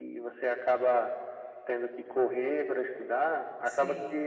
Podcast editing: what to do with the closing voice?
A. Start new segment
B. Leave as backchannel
B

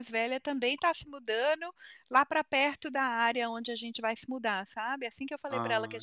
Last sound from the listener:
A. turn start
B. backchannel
B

